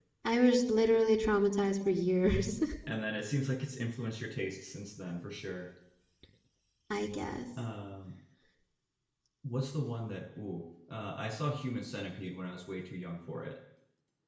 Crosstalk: none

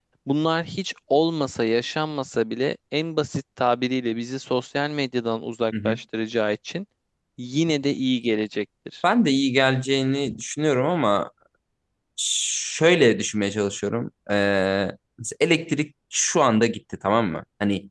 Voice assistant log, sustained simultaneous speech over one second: none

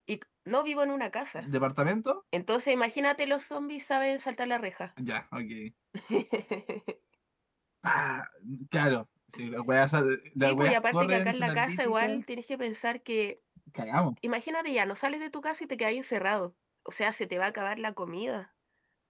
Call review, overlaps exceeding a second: present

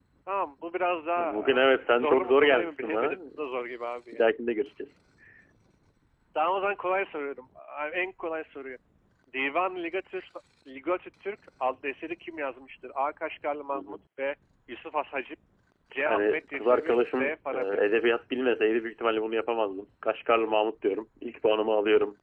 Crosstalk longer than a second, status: present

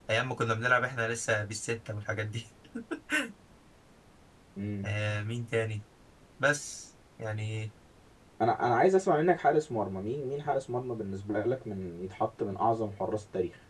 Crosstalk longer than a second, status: none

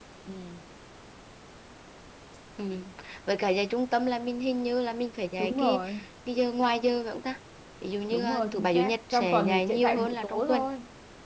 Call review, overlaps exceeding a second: present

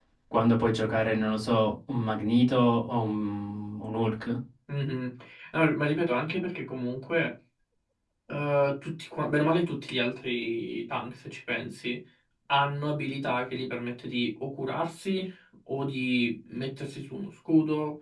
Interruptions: none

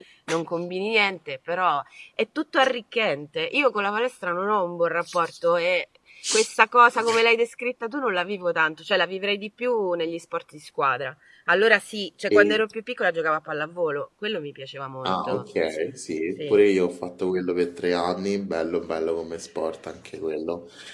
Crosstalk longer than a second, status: none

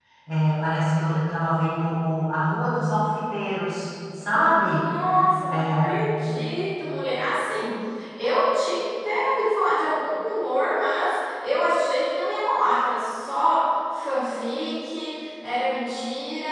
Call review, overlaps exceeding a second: none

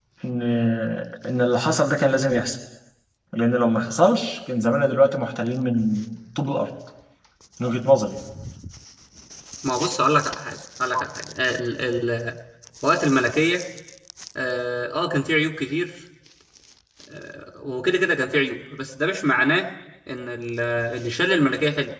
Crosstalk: none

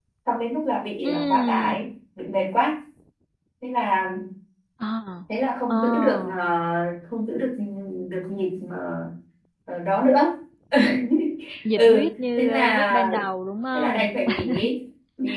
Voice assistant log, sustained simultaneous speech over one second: present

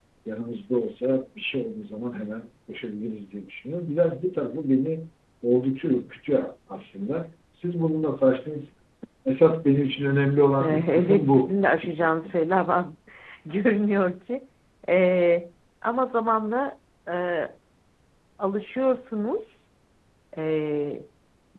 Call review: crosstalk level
present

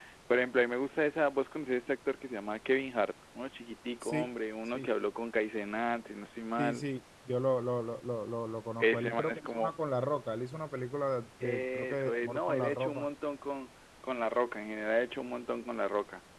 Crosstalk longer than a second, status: present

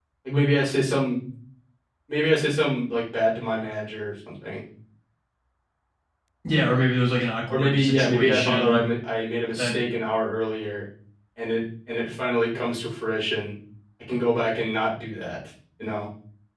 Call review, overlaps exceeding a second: present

